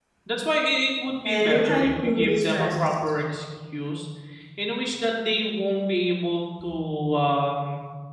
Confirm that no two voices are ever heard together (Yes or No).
No